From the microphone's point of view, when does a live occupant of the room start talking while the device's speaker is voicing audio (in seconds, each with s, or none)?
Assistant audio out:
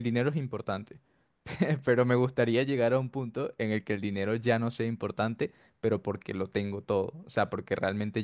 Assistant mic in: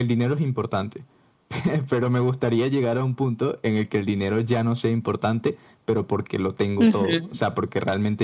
6.8 s